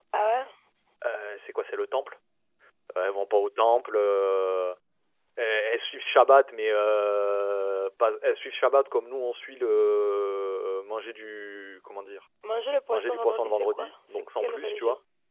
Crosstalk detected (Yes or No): Yes